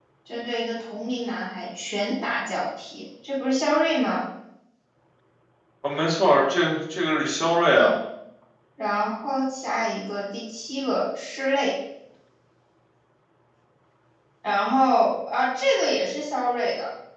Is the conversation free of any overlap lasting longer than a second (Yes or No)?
Yes